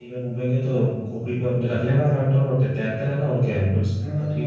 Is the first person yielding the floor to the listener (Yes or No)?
Yes